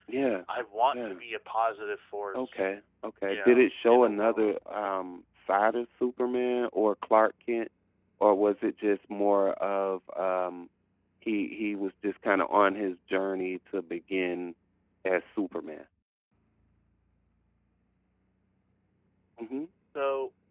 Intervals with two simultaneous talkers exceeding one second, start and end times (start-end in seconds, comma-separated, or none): 3.3-4.5